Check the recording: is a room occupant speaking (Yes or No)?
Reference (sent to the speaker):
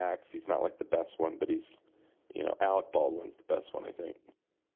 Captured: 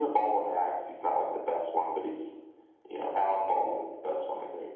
No